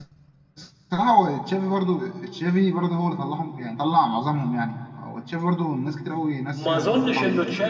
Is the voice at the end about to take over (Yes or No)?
Yes